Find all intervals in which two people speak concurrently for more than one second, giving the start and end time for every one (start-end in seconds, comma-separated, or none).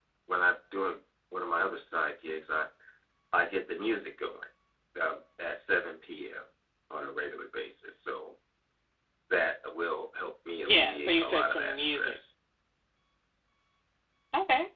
10.6-12.2